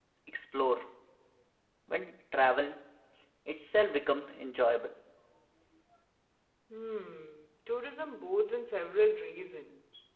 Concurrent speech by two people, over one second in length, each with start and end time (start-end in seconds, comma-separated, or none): none